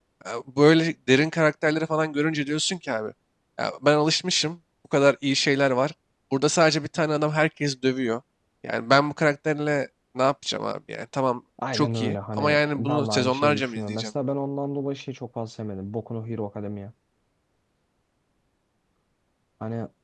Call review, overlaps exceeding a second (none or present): present